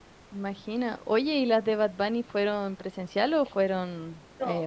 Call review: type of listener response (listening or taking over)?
taking over